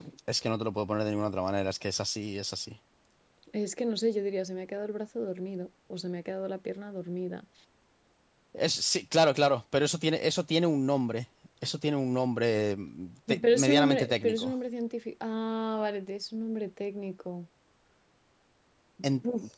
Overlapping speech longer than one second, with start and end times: 13.3-14.5

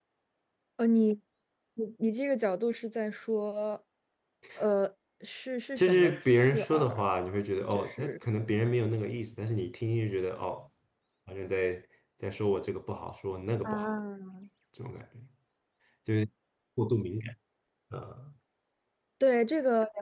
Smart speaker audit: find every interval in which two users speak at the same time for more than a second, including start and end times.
5.8-7.0

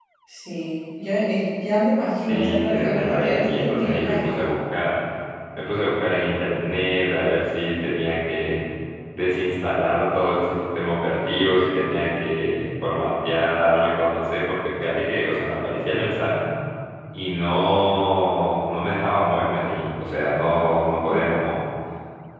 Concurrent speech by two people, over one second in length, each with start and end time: 2.2-4.5

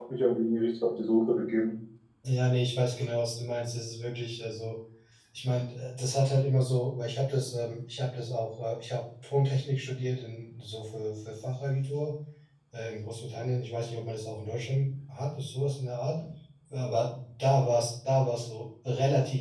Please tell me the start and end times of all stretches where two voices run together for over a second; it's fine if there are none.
none

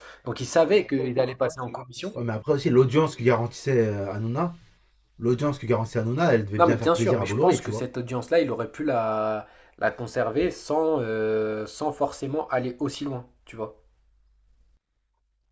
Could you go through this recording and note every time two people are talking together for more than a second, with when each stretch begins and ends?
6.6-7.8

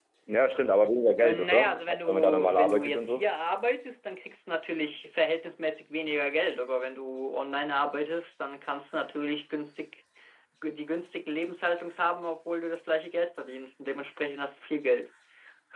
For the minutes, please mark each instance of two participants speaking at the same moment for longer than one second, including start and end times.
1.2-3.3

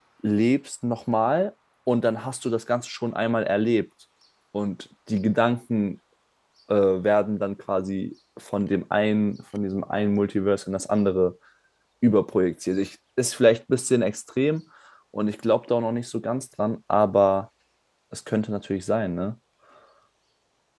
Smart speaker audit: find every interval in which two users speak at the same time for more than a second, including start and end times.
none

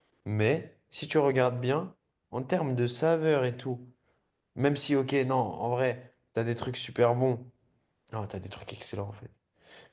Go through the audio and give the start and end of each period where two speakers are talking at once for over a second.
none

